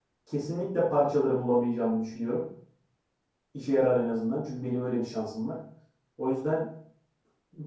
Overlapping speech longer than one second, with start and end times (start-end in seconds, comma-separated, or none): none